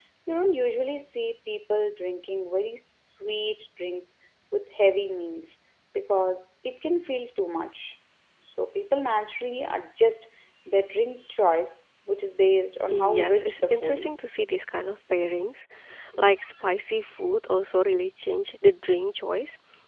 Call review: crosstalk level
present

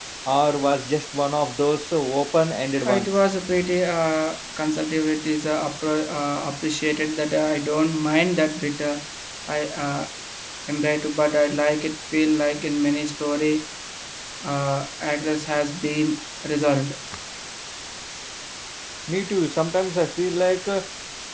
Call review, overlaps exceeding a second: none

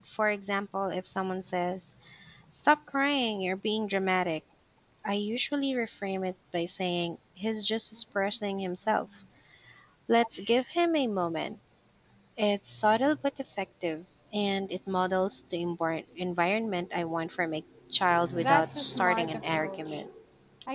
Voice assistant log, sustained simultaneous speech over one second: present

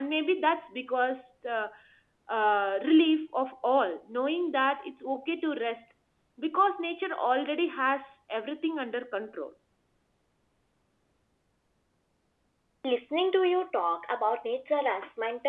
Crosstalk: none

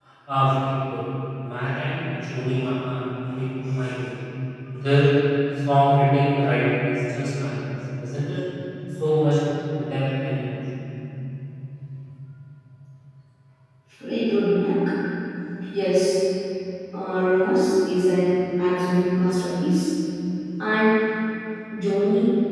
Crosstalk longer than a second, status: none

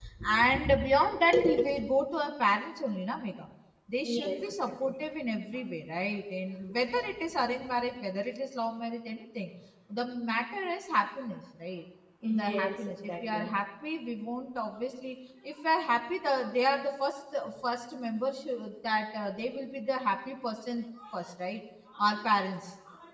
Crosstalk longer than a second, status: present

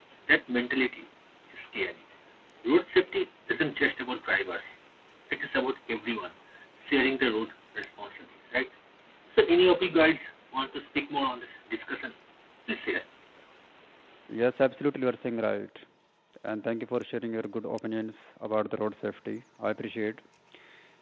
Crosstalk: none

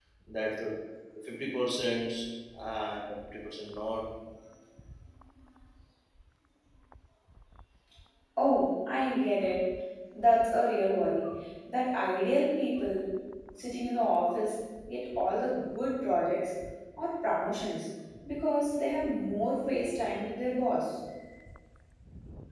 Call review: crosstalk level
none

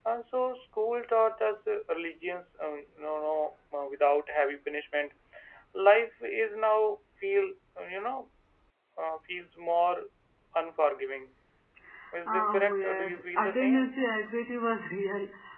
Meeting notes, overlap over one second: present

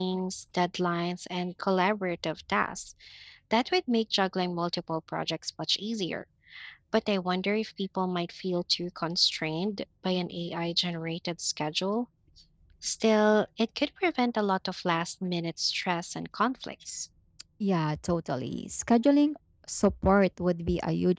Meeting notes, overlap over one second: none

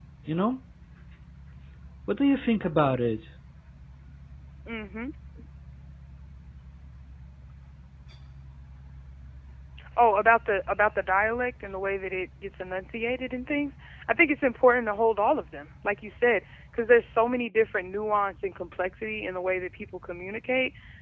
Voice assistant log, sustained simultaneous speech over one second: none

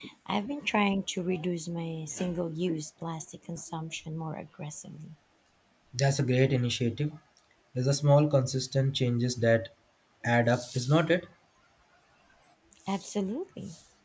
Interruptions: none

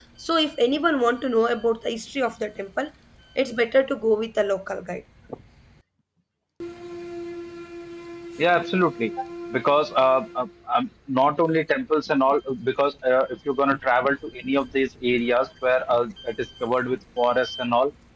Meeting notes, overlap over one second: none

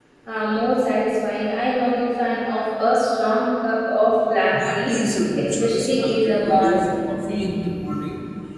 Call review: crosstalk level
present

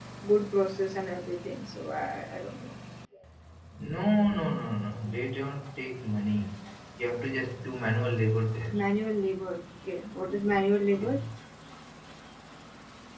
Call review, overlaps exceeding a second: none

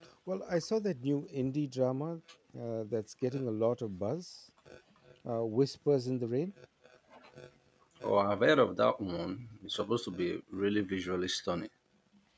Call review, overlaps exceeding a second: none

